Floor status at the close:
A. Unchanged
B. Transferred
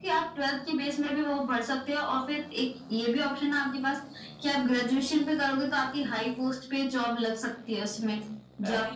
B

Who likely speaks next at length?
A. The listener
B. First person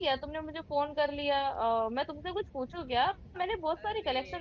A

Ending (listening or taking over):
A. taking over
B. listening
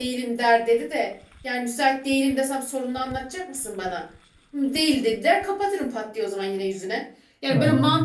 B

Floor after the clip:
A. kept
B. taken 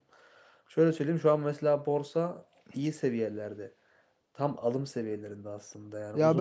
B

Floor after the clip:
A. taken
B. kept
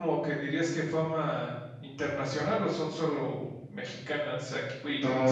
A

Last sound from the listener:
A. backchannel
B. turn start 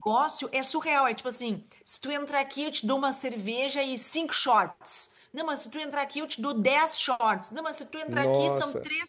A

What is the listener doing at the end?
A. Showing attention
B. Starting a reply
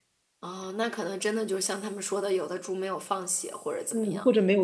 B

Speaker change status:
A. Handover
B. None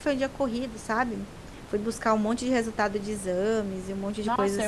A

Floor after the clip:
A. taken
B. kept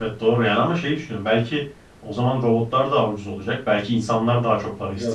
A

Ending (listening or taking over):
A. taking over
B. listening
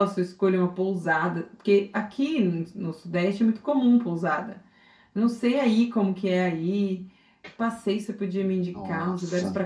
B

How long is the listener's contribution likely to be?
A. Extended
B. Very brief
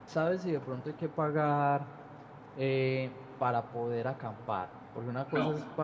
B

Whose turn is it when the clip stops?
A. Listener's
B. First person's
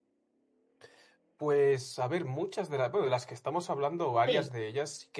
B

